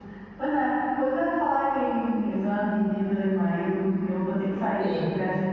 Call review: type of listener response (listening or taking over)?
listening